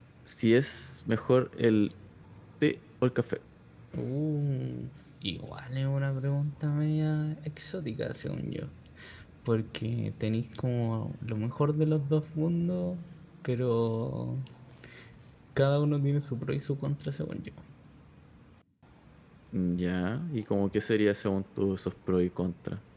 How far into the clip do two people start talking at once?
none

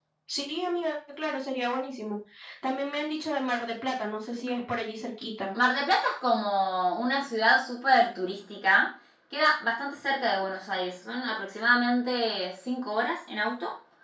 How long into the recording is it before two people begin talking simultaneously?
none

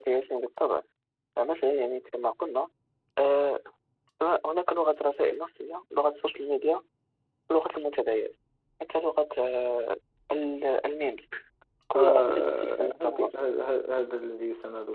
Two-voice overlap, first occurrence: 11.9 s

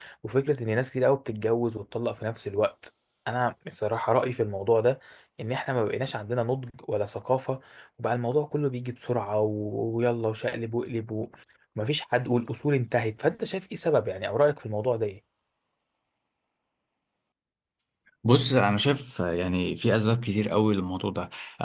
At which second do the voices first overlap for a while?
none

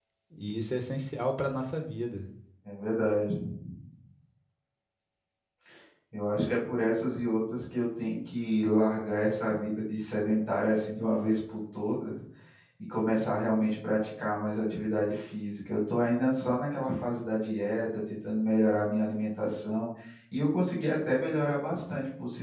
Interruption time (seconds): none

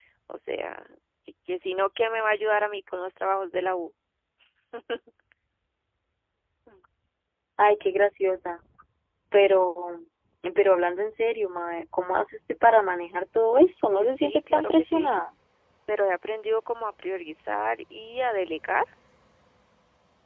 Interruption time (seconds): 13.9 s

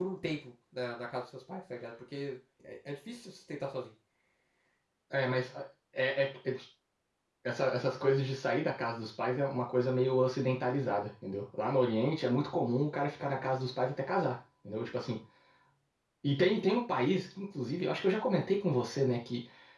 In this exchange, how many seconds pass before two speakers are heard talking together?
none

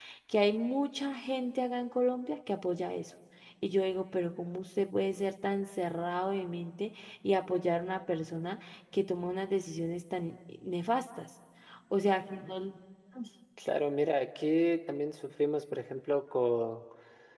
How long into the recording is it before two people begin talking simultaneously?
none

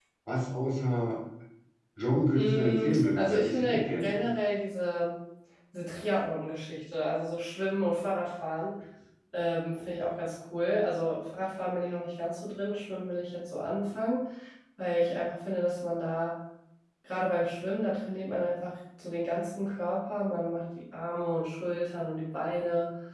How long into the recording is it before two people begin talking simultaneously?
2.3 s

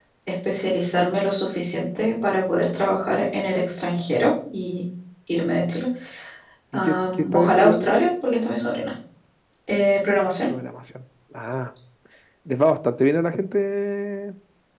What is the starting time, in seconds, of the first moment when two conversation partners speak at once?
6.7 s

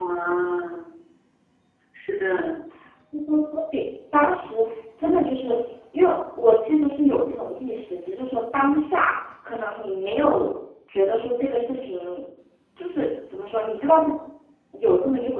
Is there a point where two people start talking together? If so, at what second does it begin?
none

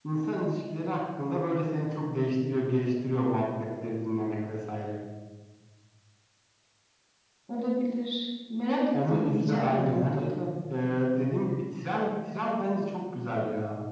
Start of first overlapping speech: 8.9 s

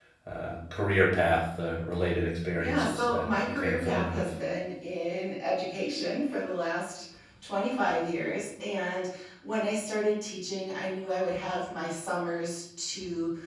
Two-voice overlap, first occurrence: 2.6 s

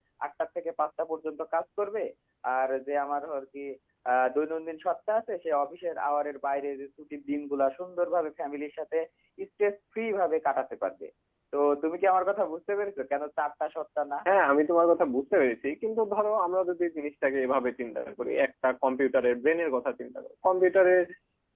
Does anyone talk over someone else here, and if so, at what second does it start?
none

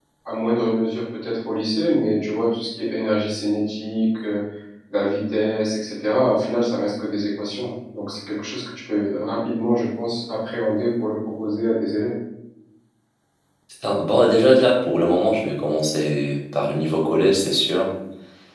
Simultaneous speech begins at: none

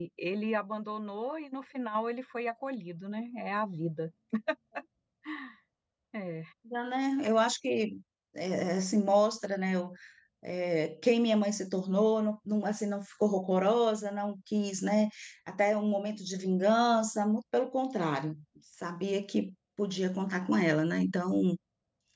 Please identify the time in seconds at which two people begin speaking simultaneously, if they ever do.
none

